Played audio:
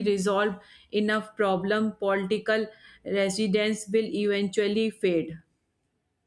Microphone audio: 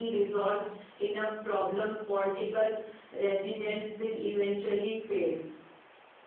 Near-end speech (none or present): none